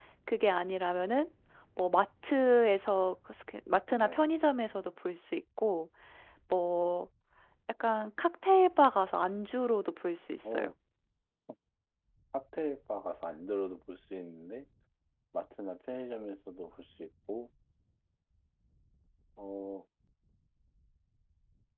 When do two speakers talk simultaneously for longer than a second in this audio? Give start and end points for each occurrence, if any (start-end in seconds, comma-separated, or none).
none